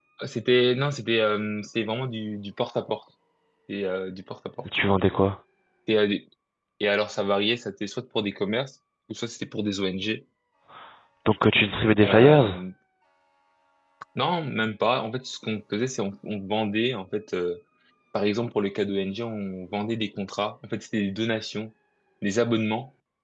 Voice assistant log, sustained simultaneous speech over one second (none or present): none